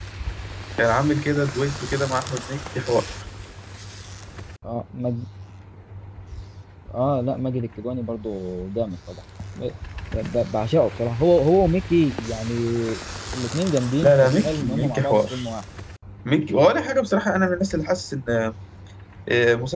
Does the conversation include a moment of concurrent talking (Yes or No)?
Yes